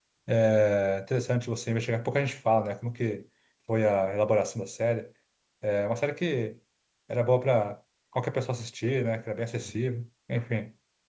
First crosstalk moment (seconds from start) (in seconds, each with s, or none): none